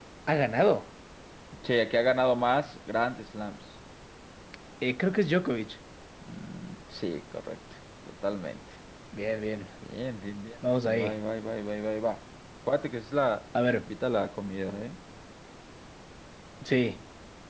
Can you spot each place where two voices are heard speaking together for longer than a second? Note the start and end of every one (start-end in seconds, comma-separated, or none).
none